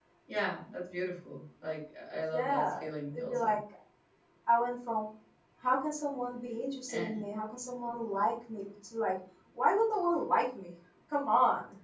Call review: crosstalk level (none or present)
present